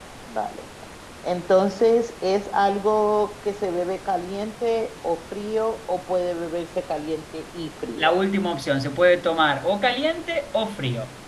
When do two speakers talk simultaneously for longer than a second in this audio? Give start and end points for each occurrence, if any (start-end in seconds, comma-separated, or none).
none